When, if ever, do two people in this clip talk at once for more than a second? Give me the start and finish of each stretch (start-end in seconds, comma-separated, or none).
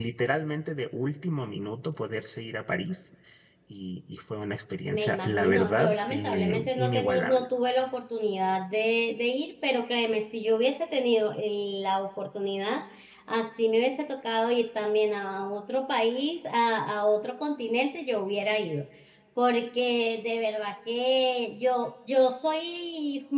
4.9-7.5